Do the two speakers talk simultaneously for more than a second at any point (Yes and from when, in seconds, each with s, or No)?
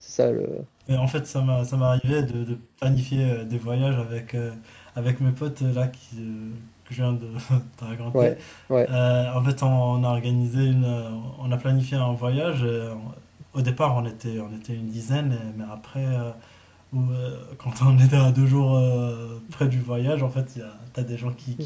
No